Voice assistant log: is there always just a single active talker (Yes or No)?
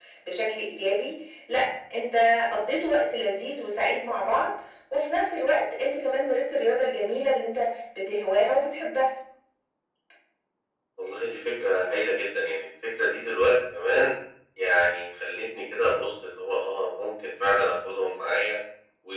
Yes